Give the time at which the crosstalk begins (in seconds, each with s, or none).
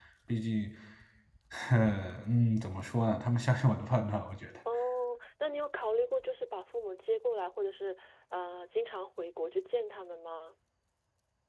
none